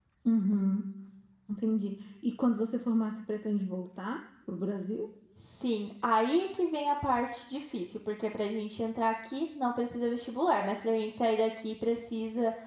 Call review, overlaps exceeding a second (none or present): none